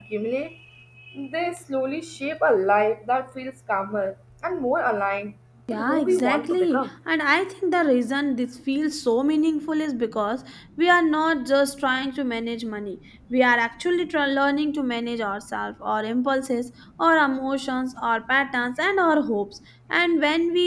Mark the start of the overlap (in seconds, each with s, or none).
5.7 s